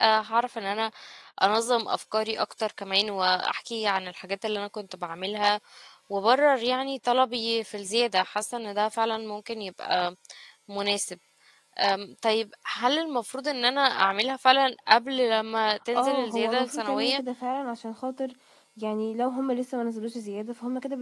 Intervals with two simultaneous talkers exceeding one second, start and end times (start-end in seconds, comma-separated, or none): 15.9-17.2